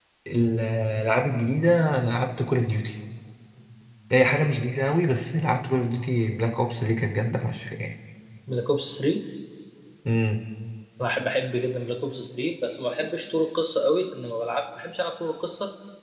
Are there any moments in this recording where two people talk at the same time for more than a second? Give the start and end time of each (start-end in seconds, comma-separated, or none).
none